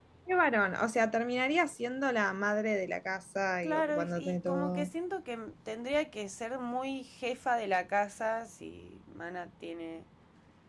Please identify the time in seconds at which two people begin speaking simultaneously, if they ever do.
3.6 s

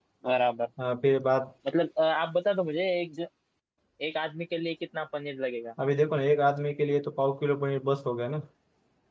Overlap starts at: none

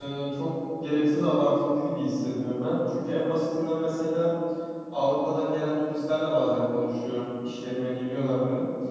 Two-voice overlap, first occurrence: none

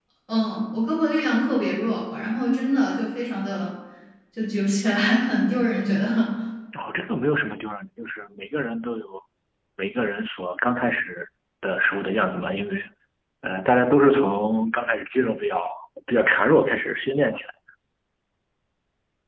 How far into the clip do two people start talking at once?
none

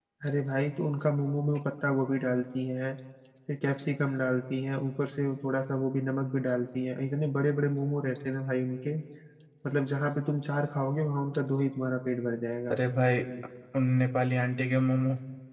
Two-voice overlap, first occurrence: none

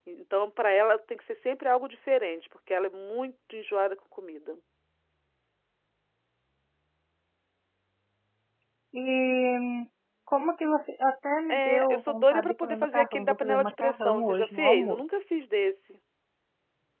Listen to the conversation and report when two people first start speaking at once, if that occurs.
11.5 s

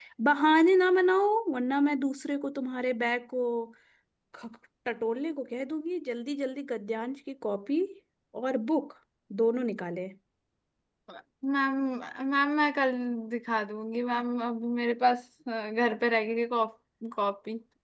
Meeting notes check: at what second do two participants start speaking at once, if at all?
none

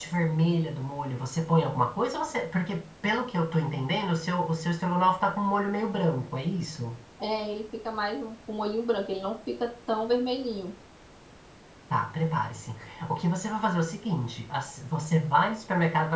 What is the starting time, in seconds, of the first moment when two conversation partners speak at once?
none

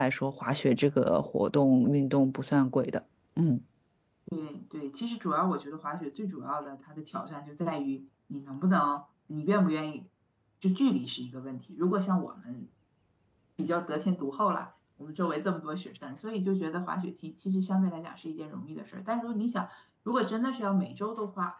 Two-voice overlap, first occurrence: none

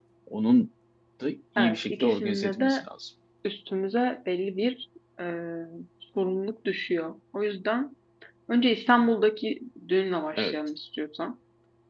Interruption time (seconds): 1.6 s

